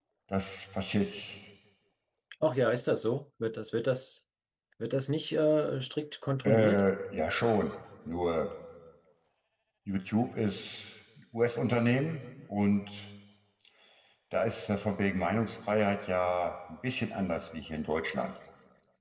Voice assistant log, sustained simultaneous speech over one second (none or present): none